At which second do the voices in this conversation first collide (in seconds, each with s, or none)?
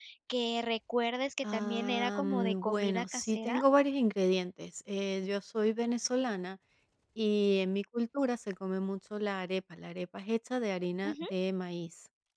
1.4 s